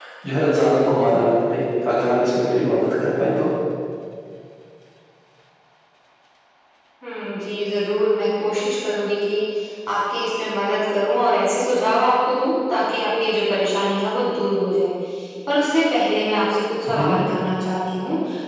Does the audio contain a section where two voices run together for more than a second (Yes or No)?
No